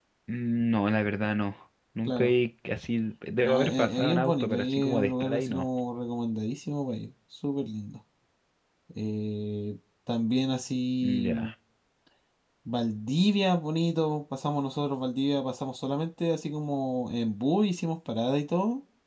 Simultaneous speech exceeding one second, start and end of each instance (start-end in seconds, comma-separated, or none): 3.4-5.7